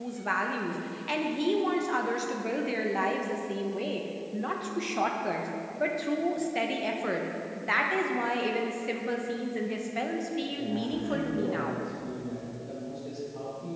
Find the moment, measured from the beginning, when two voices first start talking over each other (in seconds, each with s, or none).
10.5 s